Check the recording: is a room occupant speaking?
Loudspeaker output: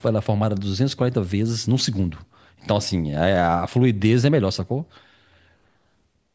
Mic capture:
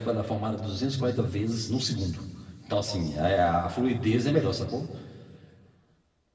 Yes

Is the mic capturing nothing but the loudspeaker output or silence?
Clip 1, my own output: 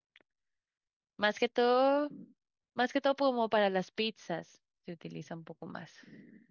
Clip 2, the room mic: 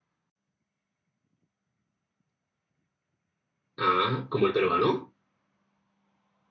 No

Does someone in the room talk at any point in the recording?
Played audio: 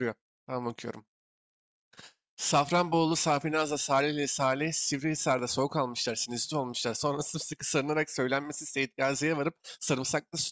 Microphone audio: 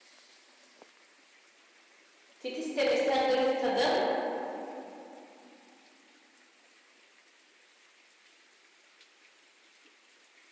Yes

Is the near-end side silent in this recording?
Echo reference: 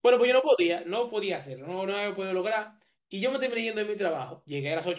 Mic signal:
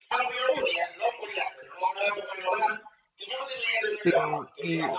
No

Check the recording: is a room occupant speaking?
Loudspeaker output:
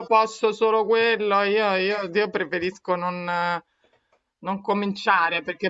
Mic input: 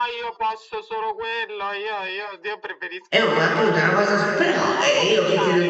Yes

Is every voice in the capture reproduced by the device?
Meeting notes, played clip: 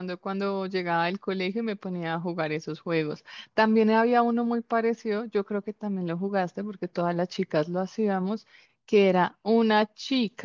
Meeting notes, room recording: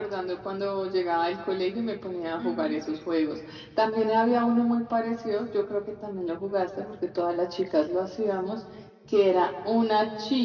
No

